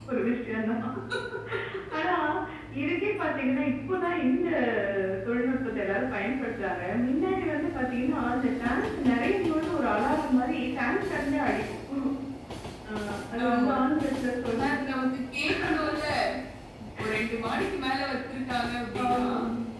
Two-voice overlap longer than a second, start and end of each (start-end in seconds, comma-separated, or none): none